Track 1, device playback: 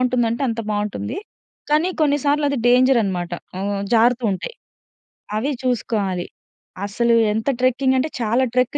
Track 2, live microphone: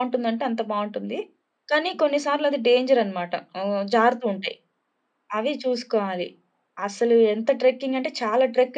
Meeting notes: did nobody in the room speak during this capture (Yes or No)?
Yes